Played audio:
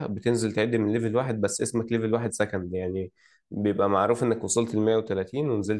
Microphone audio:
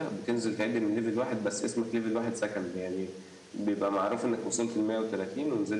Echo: present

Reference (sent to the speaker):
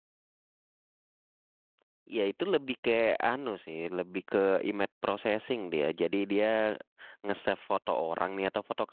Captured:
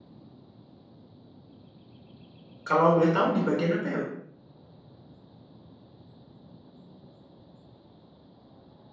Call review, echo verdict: none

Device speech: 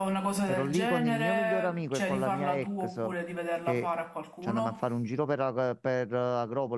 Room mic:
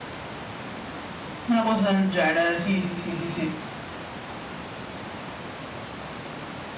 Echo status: none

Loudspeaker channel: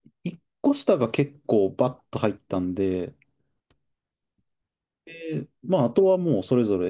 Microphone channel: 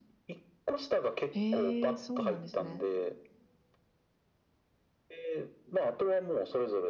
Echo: present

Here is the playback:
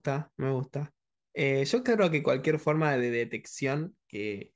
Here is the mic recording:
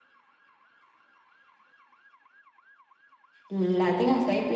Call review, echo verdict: none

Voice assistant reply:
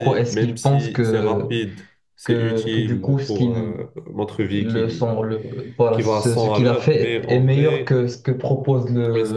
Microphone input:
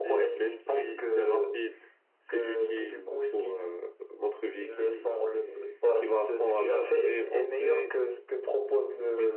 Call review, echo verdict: present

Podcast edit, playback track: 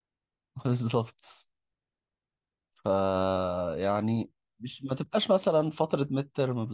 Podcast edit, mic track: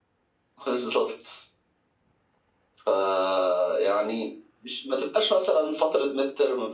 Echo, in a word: present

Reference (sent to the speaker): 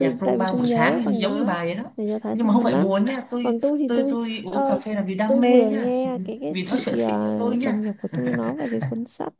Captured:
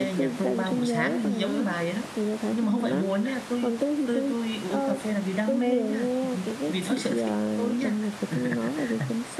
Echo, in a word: present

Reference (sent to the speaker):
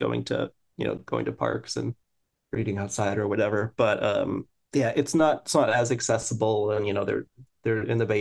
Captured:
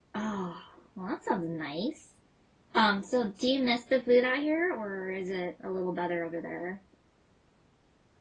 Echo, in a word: none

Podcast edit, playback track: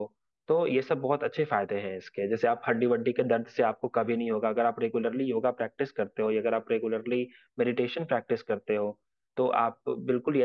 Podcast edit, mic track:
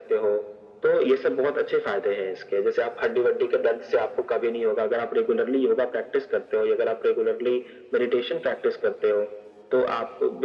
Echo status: present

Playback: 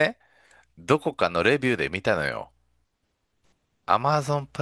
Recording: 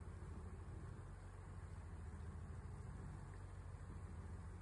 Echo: none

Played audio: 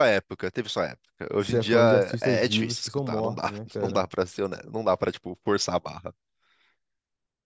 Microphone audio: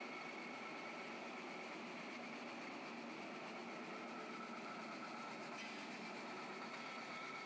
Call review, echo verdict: none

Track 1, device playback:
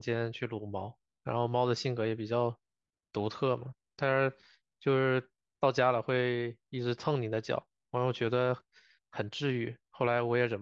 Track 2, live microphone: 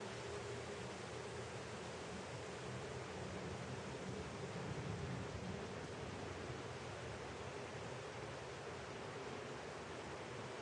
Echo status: none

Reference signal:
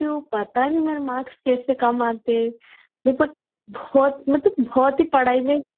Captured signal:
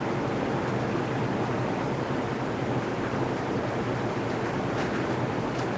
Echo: none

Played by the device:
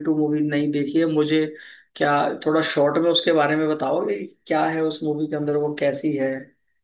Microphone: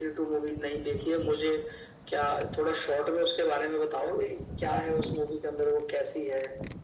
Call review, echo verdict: present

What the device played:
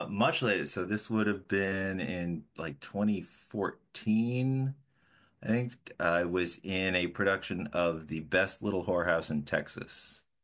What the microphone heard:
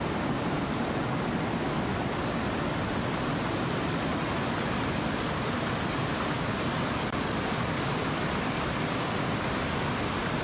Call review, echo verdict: none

